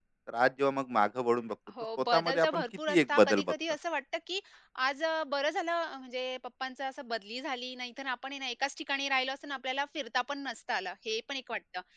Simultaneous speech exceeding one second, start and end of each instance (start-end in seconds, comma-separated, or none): 2.0-3.5